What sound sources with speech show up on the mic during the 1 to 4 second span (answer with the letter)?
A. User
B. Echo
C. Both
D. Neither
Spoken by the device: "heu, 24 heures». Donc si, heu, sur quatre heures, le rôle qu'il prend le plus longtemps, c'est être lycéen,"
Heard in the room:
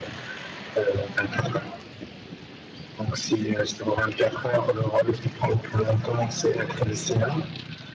B